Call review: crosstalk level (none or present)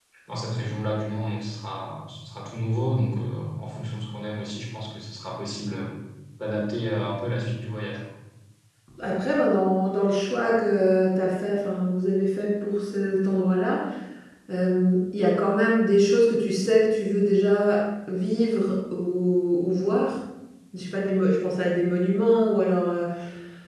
none